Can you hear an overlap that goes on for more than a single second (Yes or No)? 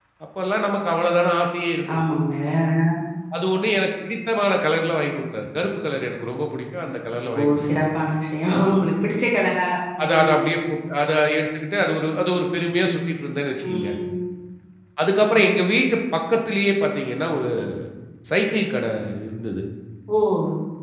No